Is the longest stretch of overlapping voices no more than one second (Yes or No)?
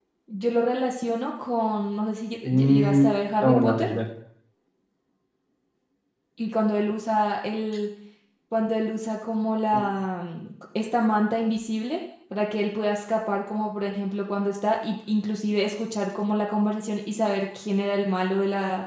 No